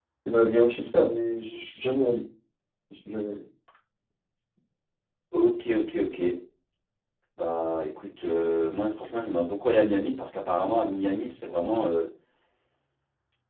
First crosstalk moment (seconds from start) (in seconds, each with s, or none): none